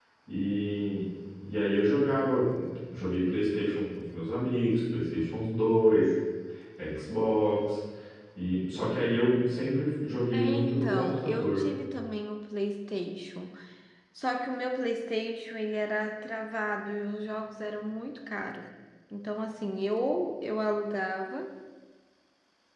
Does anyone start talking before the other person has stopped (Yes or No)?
Yes